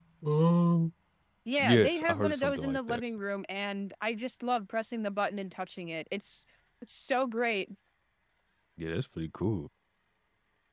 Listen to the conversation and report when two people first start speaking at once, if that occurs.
1.6 s

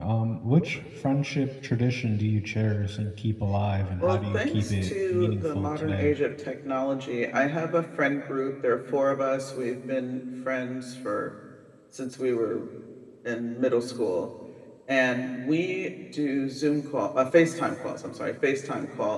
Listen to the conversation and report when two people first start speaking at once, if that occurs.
4.0 s

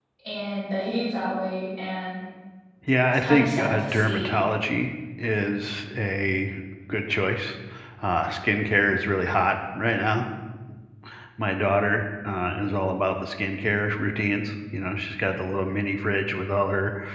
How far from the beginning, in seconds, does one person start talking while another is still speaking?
3.1 s

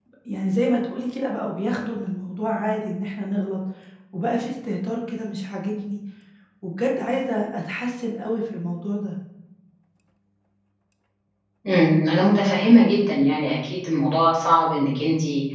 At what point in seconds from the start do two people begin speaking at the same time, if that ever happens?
none

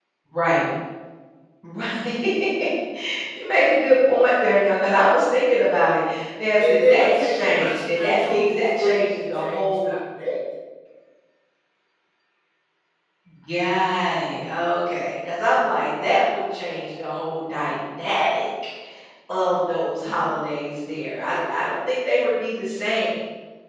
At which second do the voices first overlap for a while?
6.6 s

